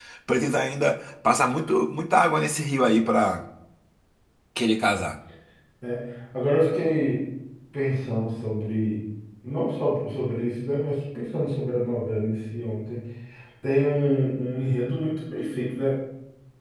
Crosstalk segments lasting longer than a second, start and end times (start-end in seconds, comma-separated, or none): none